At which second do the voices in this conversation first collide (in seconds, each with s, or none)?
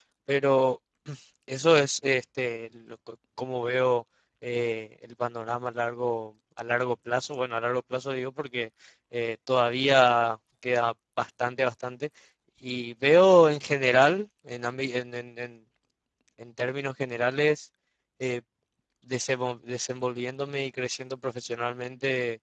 none